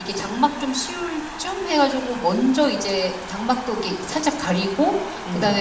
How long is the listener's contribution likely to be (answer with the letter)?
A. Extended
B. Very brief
B